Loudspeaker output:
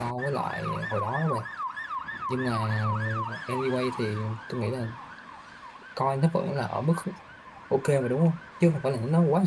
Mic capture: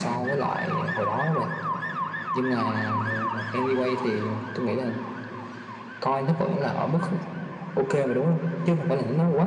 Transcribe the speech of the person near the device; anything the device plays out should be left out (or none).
none